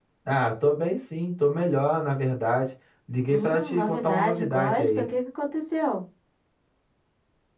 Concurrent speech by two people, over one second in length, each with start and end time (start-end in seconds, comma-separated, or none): 3.3-5.1